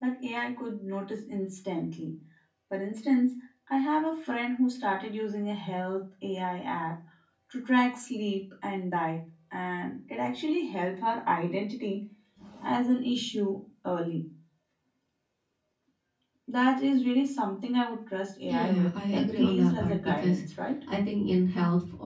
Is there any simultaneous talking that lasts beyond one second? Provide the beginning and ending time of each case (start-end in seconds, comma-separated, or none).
18.5-20.4